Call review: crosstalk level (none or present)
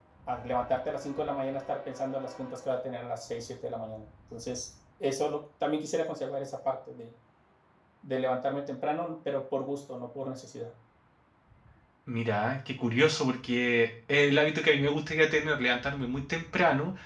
none